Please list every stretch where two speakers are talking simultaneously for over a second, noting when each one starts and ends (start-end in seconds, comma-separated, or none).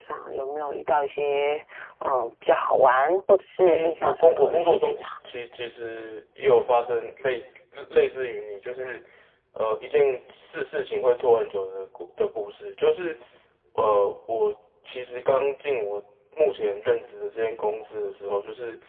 3.6-5.1